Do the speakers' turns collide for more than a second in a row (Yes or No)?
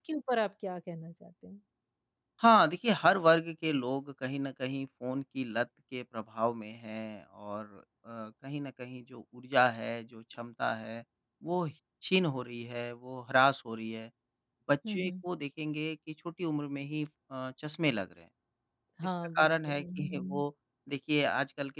Yes